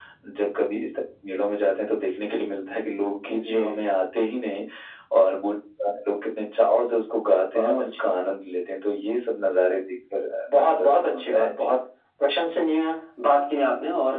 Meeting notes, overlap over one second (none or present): present